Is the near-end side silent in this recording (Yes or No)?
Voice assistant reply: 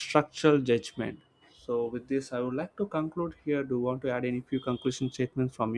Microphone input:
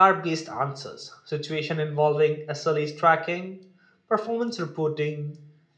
No